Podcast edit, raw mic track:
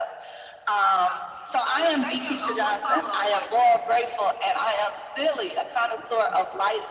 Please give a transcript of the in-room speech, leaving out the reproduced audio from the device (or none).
Awesome. So the second, a little follow up question